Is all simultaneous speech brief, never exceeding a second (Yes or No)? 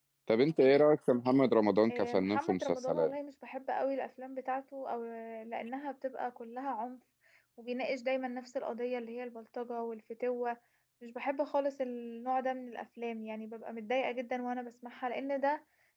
No